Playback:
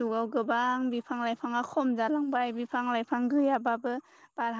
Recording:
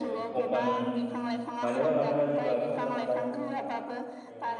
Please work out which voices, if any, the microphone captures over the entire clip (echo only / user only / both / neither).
both